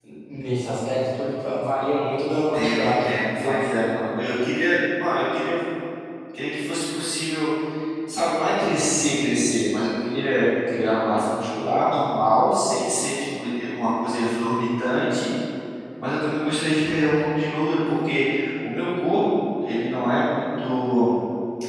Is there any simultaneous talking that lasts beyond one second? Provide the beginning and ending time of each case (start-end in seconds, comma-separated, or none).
2.3-3.7